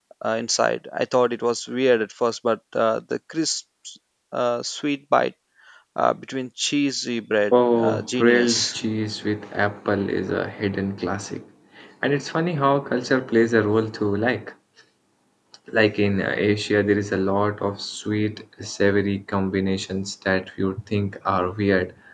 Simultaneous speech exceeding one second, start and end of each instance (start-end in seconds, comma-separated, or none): 7.5-8.8